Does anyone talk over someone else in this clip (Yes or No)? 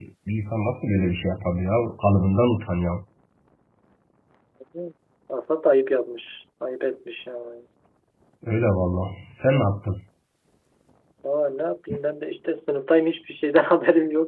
No